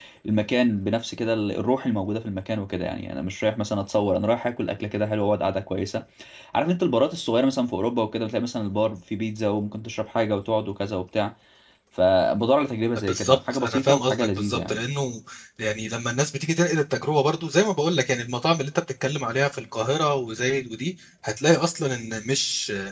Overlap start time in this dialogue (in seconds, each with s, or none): 13.1 s